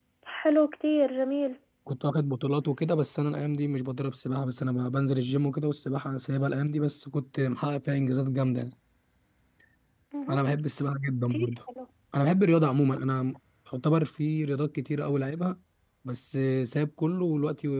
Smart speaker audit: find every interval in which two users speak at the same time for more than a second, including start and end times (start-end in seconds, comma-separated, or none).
none